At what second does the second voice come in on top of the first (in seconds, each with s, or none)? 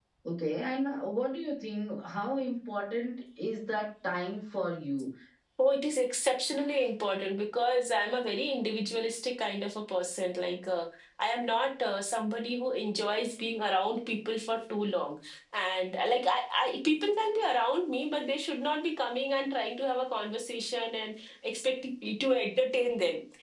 none